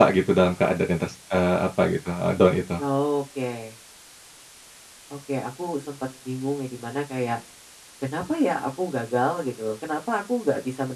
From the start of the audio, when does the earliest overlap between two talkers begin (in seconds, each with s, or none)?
none